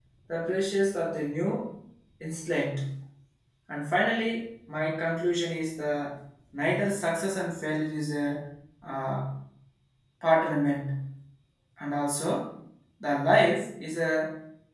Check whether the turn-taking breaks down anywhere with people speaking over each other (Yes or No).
No